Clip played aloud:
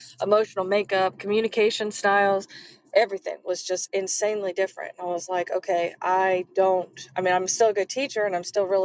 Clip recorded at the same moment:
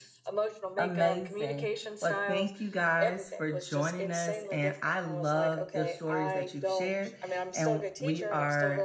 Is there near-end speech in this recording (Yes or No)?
Yes